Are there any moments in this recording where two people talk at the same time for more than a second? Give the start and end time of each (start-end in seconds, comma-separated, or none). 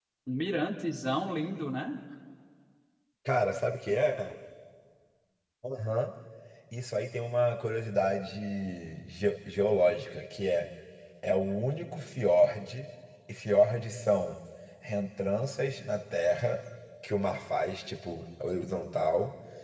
none